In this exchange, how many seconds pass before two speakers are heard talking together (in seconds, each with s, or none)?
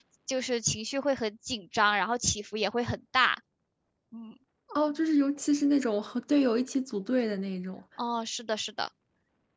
none